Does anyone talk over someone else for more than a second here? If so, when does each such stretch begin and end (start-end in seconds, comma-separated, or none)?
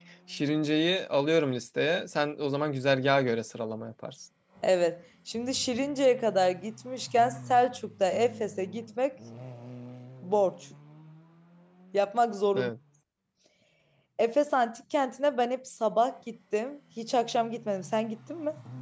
none